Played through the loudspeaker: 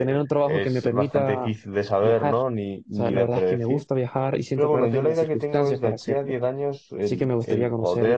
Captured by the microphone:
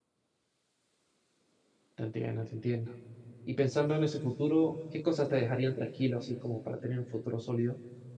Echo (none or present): none